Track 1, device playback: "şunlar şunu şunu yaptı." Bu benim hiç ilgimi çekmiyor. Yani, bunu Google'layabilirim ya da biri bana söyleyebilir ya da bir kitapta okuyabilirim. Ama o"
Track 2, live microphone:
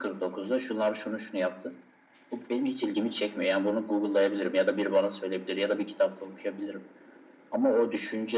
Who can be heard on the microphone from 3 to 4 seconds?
echo only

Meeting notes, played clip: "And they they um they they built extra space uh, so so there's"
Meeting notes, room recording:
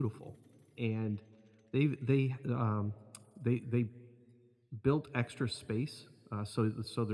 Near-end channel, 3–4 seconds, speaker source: echo only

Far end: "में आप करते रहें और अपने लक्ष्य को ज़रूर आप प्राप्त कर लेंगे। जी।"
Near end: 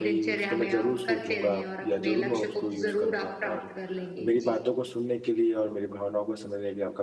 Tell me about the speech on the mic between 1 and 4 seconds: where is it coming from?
both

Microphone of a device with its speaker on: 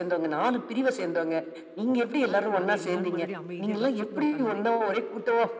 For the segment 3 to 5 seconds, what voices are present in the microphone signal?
both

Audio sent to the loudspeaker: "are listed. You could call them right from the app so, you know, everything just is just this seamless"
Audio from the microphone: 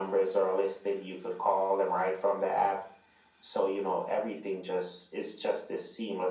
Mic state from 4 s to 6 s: echo only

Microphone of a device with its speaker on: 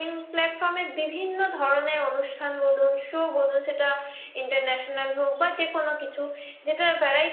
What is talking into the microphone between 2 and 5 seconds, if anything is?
echo only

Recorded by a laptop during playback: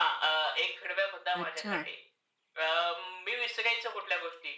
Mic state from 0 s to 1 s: echo only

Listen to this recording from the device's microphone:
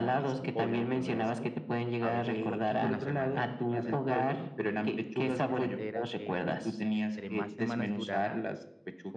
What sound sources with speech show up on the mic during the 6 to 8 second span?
both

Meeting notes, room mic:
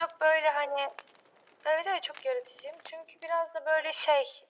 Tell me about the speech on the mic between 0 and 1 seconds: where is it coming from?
echo only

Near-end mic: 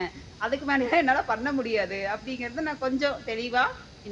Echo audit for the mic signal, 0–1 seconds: echo only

